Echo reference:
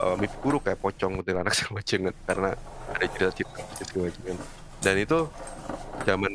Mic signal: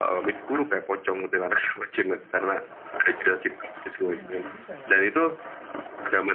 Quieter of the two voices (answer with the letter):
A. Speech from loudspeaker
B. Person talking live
B